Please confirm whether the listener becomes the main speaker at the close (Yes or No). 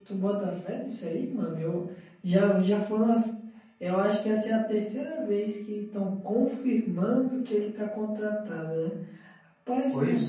No